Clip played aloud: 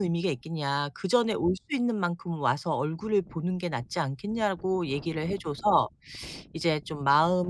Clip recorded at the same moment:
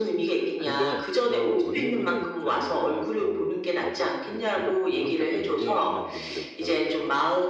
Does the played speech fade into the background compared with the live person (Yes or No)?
No